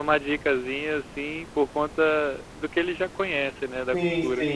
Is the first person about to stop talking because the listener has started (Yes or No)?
Yes